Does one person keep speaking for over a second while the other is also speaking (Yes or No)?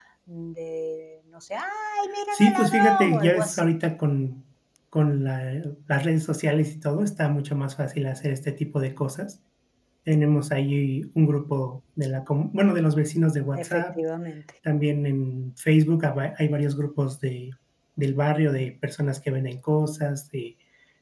Yes